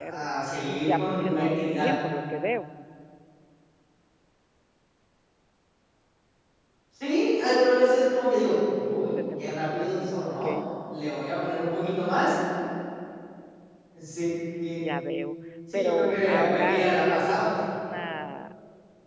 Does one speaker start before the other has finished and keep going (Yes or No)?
Yes